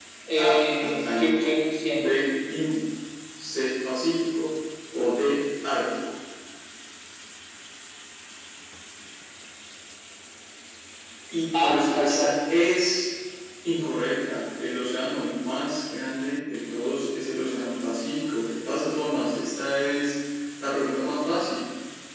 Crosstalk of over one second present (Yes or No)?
Yes